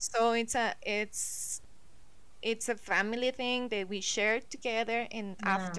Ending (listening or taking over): listening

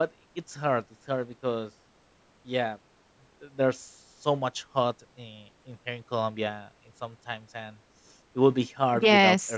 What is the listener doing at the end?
taking over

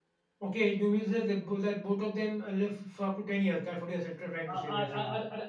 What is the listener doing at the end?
taking over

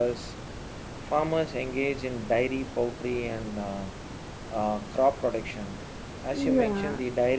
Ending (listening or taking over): listening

